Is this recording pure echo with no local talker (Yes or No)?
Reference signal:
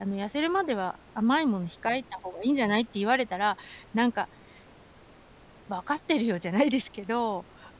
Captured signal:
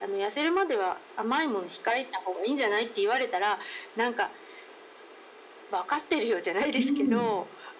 No